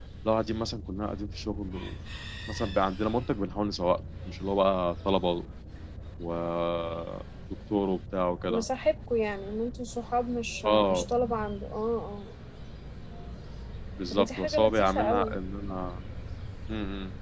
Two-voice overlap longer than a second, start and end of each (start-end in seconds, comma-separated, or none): 14.1-15.3